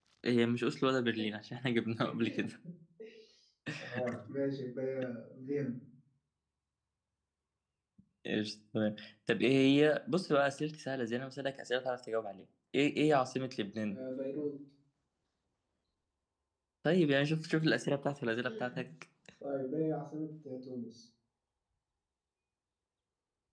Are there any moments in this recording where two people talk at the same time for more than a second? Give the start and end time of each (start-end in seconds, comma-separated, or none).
none